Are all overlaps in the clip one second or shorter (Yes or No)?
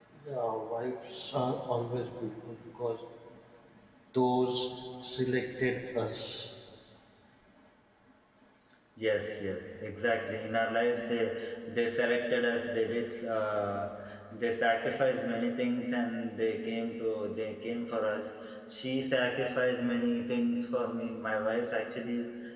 Yes